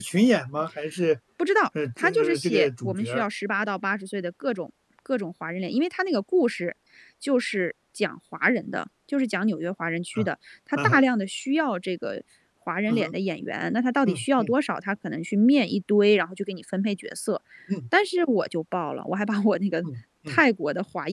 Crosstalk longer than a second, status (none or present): present